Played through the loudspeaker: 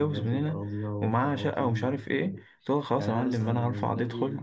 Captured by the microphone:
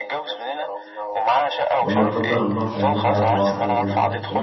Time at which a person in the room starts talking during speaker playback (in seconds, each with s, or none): 1.8 s